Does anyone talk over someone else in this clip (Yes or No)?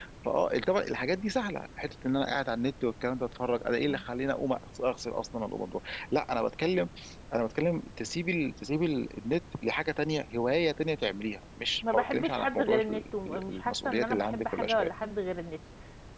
Yes